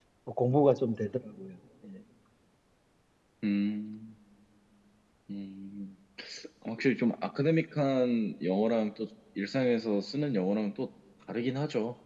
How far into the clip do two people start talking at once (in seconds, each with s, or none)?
none